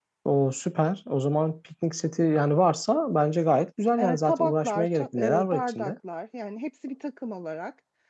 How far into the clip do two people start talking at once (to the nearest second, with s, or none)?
4 s